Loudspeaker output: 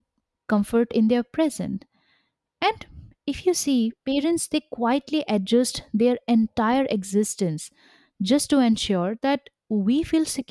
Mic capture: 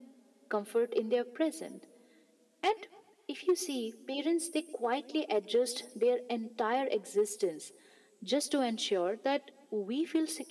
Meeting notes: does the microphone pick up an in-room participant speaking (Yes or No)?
No